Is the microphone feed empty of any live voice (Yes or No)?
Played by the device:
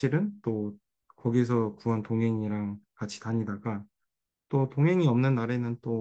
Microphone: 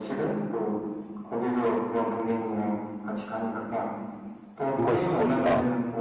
No